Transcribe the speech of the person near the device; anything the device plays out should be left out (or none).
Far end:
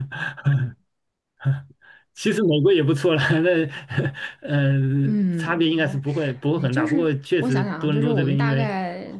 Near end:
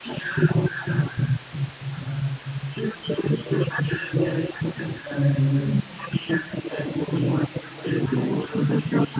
none